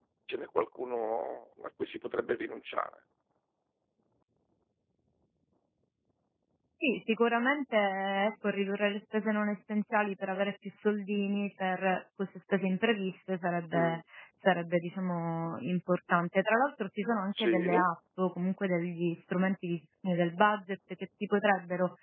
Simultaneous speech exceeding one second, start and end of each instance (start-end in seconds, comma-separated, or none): none